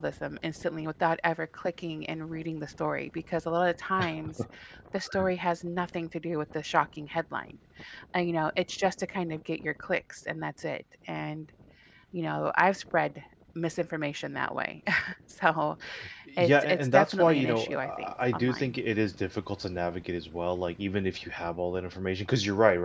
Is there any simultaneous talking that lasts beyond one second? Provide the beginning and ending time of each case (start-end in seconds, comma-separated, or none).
16.4-18.8